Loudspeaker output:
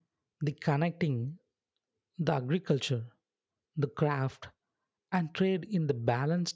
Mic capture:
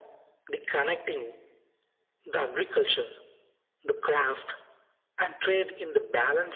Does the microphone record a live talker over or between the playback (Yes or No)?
No